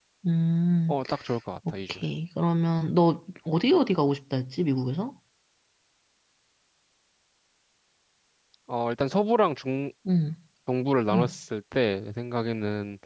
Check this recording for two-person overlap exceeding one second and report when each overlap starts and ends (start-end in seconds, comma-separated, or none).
none